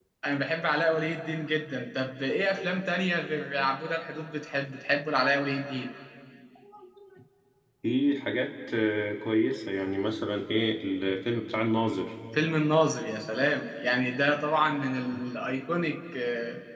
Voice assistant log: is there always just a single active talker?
Yes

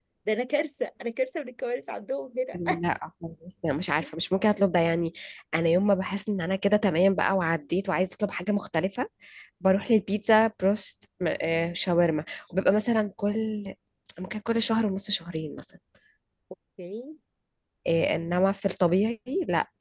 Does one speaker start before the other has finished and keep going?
No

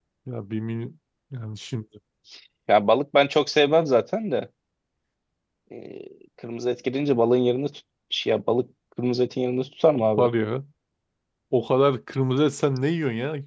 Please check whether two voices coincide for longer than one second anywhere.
No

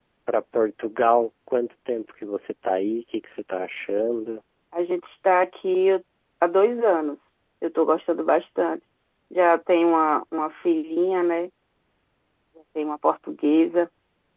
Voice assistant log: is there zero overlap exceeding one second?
Yes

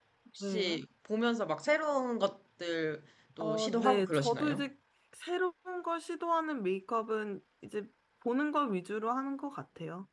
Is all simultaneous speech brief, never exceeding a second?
No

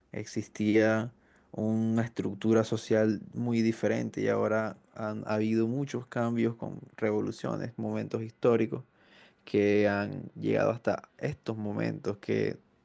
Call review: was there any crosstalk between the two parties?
No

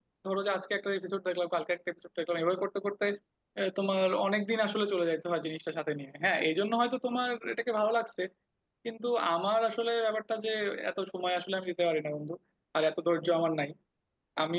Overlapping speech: No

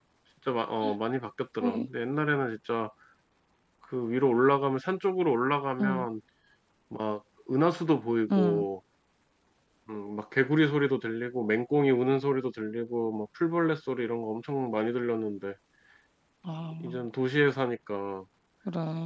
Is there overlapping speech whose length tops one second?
No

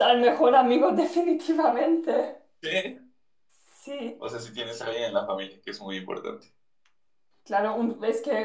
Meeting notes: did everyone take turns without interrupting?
Yes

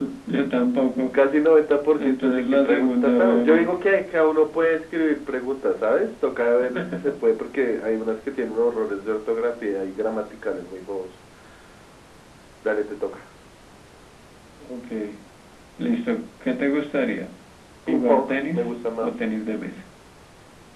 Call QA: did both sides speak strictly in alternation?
No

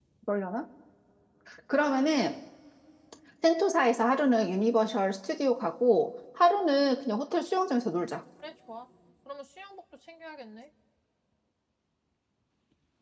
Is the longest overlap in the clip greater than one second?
No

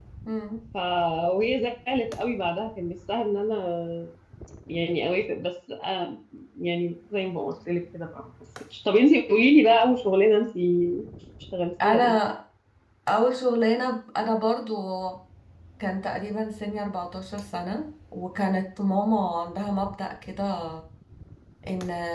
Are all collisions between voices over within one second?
Yes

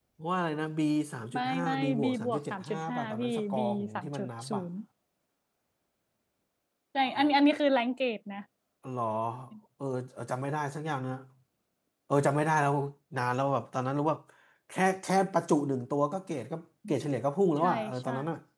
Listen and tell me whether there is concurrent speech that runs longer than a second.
Yes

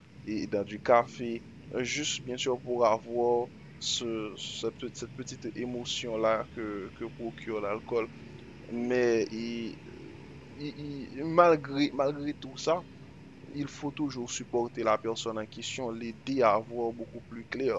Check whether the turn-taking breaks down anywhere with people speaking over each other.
No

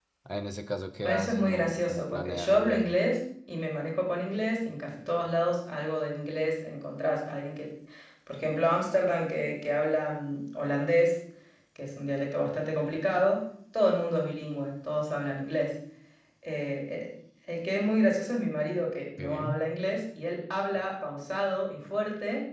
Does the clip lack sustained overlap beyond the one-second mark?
No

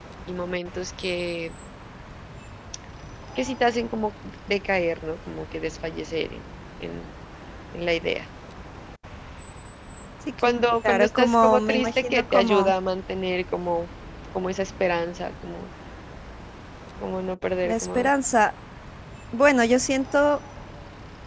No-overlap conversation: No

